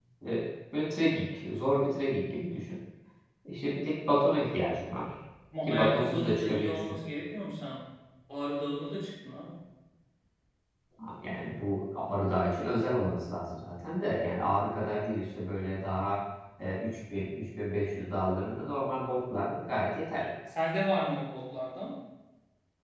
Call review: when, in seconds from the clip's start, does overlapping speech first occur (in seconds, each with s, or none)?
5.7 s